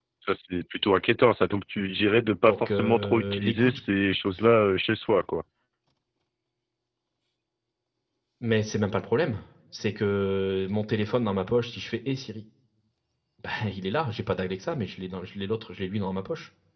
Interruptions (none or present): present